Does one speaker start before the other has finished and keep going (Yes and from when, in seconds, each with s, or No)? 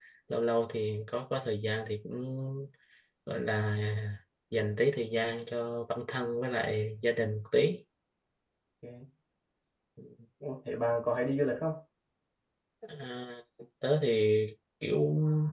No